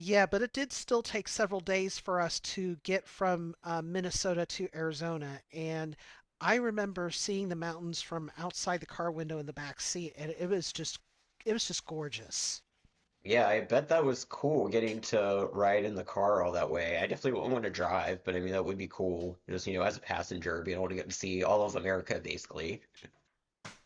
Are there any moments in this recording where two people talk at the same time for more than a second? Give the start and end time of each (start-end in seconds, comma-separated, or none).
none